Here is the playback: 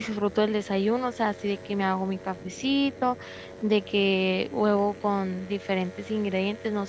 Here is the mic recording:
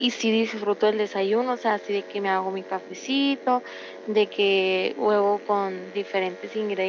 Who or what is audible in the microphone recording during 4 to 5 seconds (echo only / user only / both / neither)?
echo only